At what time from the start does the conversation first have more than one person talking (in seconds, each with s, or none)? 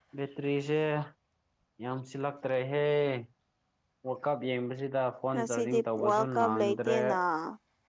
5.3 s